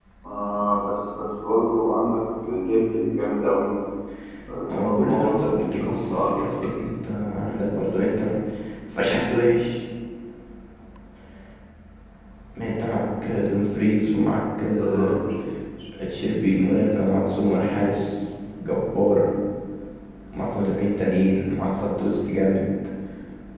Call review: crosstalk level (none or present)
present